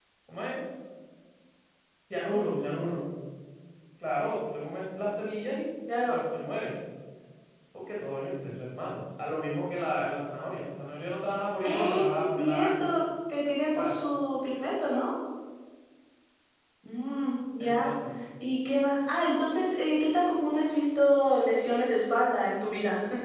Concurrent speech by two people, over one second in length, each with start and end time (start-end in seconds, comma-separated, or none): 11.6-12.9